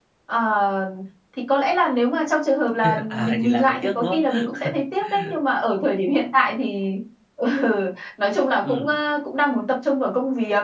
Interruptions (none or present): present